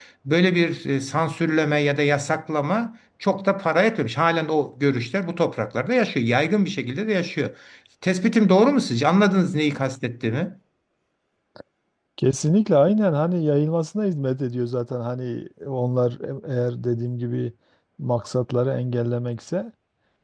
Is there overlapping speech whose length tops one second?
No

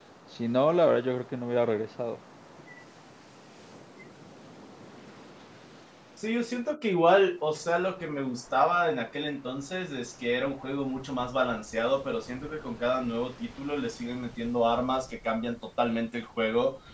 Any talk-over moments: No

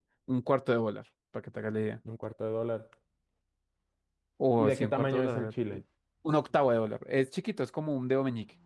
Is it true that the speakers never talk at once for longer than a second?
No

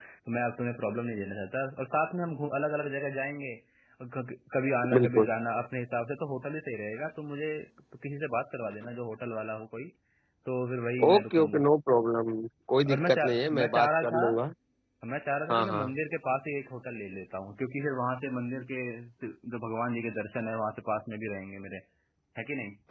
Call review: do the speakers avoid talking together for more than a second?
No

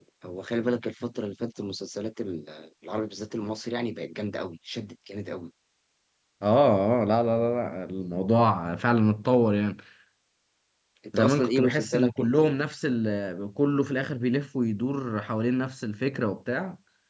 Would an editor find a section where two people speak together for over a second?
Yes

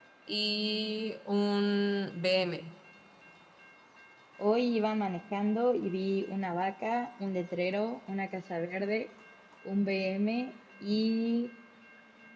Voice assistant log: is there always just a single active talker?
Yes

